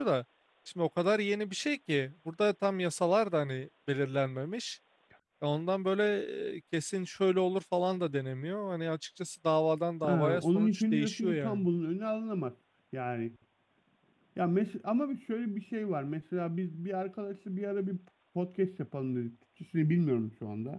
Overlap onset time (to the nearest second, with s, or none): 10 s